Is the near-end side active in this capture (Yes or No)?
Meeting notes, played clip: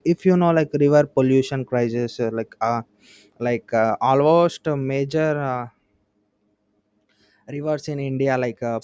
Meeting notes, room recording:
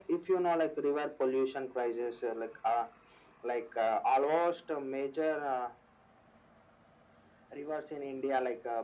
No